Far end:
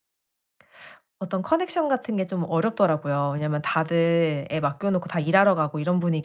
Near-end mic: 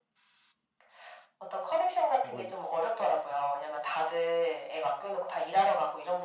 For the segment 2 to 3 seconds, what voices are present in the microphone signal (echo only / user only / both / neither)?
both